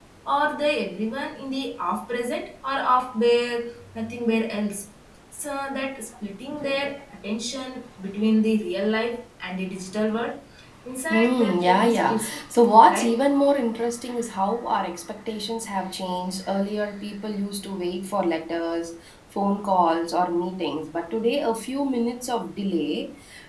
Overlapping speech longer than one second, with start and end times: 11.1-12.3

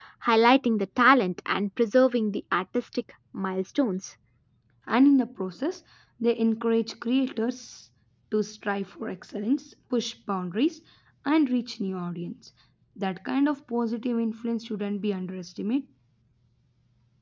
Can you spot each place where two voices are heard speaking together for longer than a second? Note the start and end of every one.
none

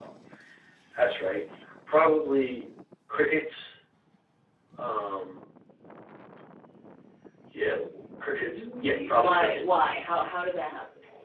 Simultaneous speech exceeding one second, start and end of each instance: 8.4-9.8

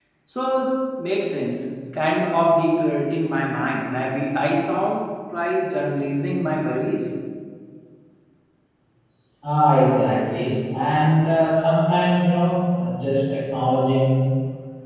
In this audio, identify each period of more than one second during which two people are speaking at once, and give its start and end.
none

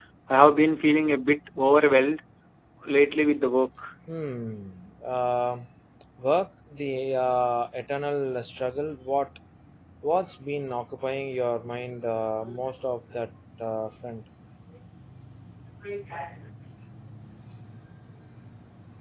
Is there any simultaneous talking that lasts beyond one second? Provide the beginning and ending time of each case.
none

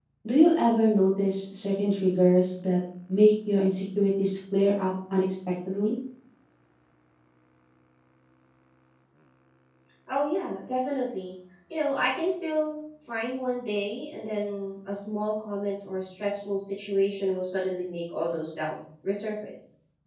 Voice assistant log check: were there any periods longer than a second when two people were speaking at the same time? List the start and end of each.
none

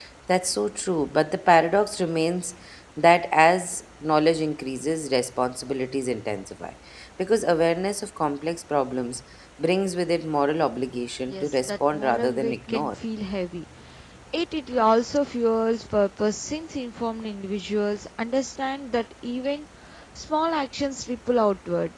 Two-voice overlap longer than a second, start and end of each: 11.3-12.9

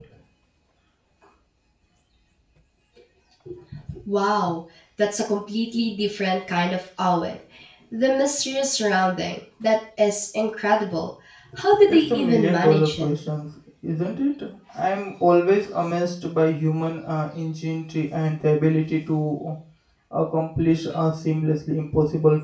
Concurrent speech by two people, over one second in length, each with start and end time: 11.8-13.1

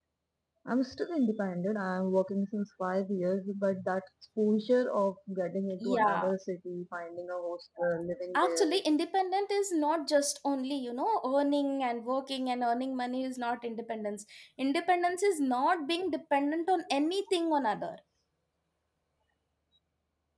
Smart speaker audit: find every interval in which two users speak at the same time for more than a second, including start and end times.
none

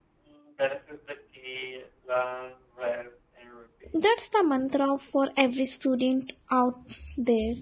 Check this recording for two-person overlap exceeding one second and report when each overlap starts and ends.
none

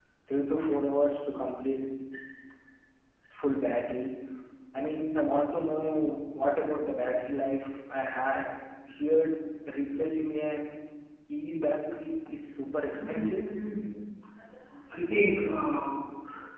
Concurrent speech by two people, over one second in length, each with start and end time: none

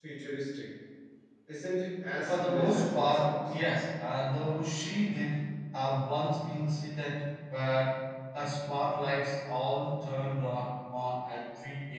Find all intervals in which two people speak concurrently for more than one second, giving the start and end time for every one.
2.2-3.6

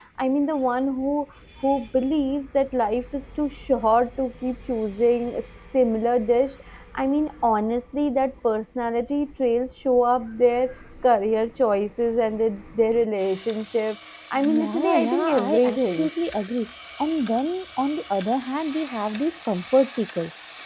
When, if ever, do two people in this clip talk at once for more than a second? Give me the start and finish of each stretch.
14.5-16.1

